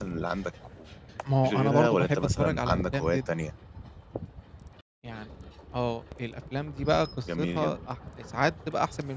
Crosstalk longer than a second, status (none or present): present